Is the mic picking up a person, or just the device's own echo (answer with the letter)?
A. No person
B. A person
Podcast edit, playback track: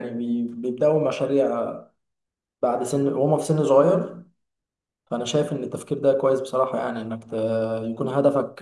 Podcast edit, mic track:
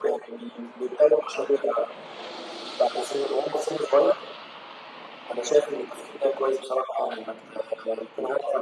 A